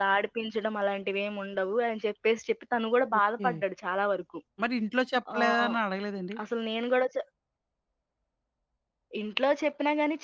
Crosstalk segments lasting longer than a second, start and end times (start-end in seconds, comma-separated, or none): none